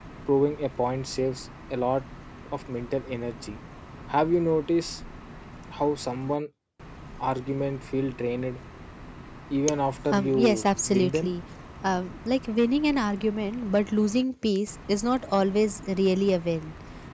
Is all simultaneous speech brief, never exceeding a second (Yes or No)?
No